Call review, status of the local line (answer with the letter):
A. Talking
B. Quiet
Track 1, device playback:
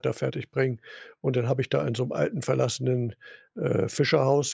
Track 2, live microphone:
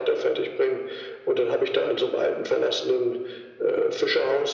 B